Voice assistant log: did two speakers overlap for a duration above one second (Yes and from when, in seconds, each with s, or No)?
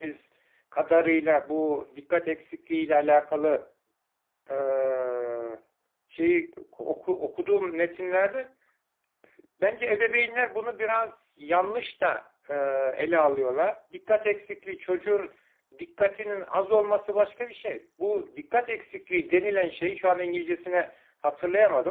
No